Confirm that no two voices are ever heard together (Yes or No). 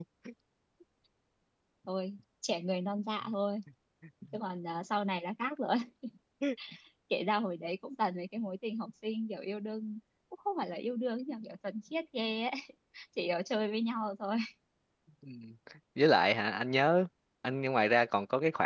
Yes